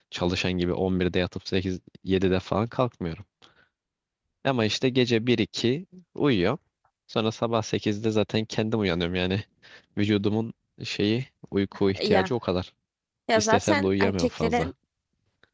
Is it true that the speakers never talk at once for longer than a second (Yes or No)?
No